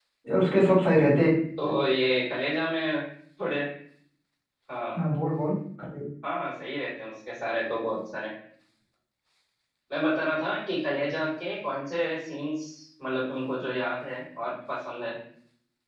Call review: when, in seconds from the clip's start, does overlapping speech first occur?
none

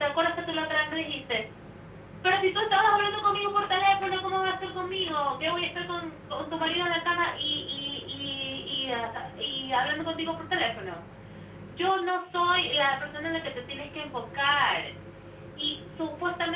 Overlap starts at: none

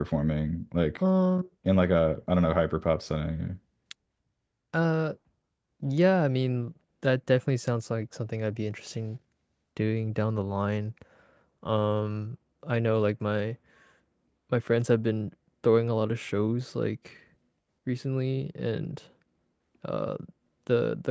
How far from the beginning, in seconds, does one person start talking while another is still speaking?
none

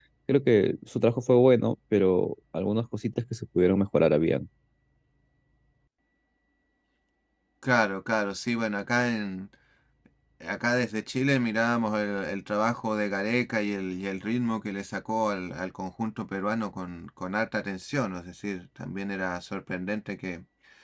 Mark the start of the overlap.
none

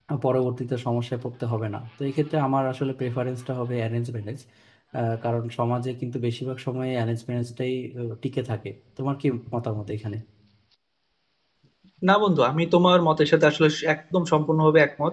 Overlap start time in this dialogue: none

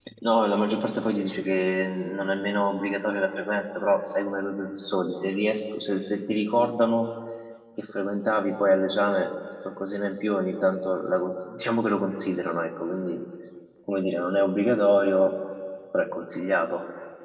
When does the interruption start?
none

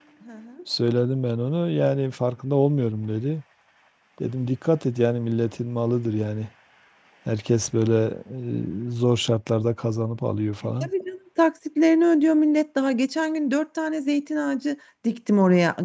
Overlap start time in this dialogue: none

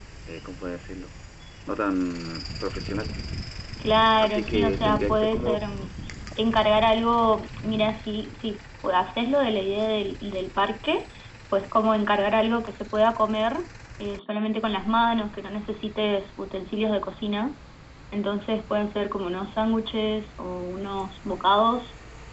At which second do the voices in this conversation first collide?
4.2 s

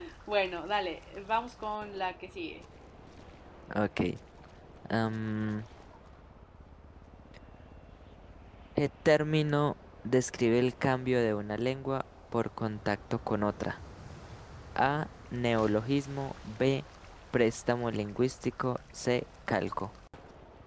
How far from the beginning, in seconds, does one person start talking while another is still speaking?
none

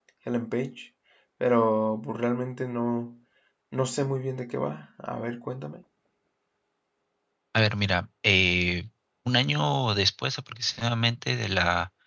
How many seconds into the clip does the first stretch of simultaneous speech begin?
none

